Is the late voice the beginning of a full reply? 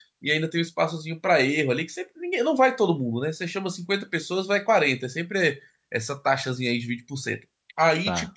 No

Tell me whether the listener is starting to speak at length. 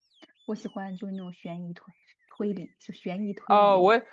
Yes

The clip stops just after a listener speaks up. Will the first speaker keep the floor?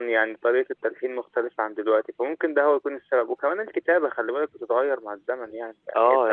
No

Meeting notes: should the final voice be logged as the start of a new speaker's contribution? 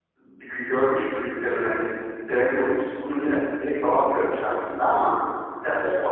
No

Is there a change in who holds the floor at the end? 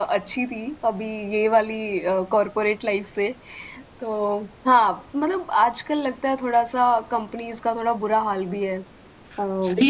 Yes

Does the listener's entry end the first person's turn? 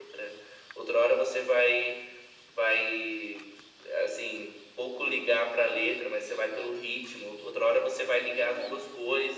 No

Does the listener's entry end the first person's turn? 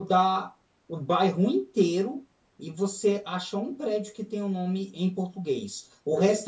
No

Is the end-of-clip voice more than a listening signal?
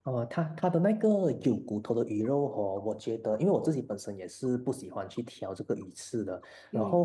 No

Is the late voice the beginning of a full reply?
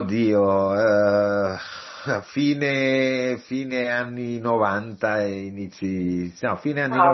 Yes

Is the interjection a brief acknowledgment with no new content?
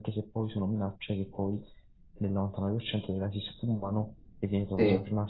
Yes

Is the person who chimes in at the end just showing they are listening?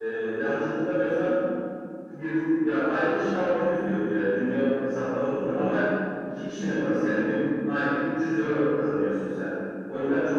No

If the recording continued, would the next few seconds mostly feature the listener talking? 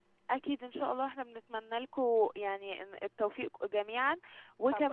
Yes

